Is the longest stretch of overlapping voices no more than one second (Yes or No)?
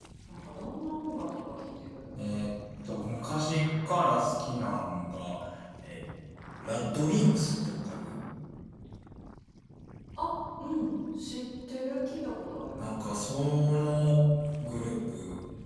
Yes